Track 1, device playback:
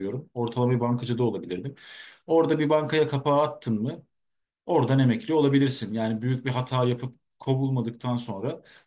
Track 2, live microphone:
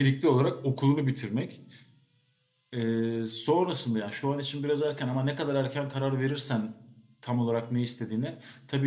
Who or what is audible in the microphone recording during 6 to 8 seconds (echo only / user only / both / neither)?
user only